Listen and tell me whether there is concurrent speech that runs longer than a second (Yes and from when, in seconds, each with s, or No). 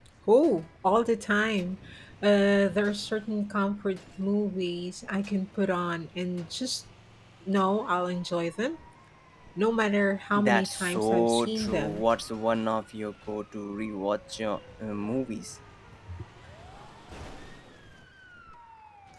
Yes, from 10.4 s